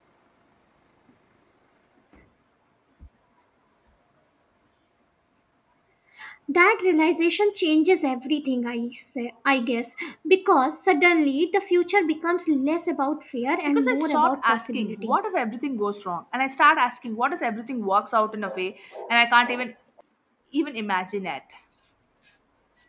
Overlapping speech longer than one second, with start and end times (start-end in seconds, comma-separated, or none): 13.7-15.2